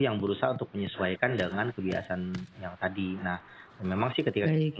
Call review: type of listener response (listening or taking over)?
listening